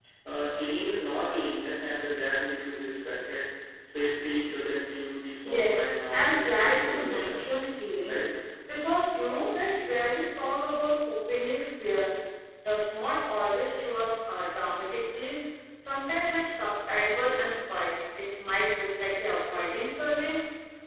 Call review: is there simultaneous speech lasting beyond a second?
Yes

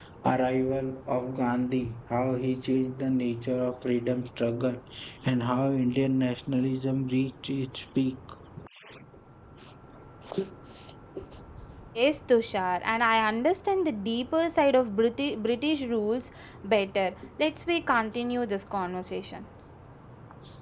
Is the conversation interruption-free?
Yes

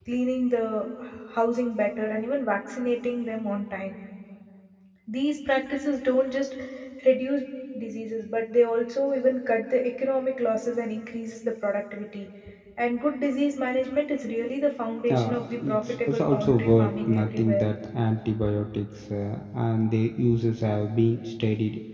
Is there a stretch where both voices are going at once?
Yes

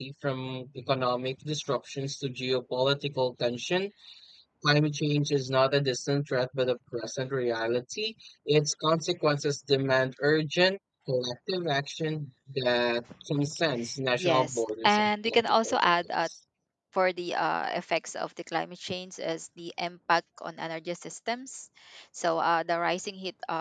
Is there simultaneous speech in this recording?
Yes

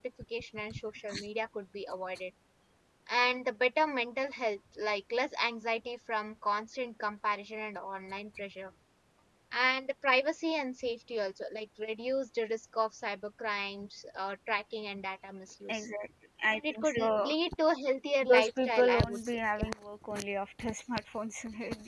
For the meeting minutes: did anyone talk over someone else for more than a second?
Yes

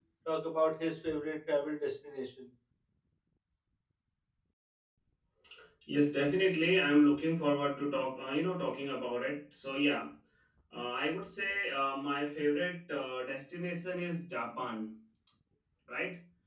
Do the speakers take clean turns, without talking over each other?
Yes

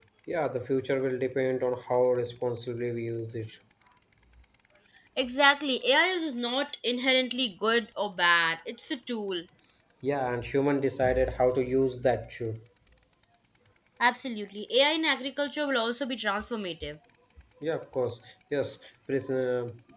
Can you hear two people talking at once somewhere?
No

